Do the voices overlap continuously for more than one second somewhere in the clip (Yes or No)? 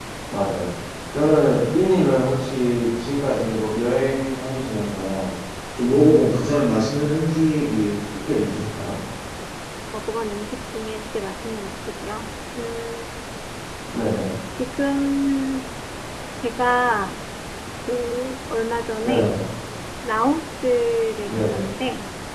No